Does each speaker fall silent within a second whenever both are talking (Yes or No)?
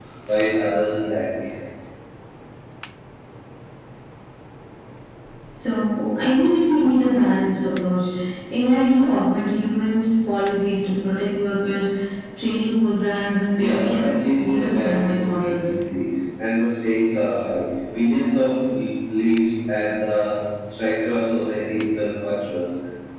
No